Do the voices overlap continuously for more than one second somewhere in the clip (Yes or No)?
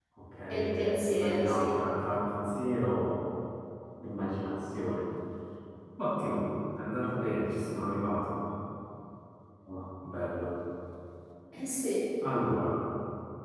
Yes